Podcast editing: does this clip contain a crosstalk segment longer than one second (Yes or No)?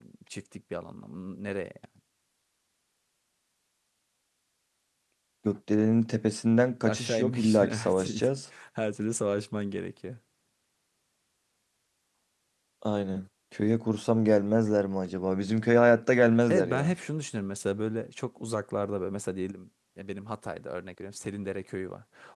Yes